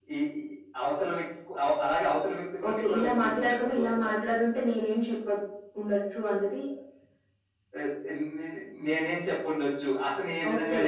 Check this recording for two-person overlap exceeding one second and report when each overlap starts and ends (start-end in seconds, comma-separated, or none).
2.7-4.2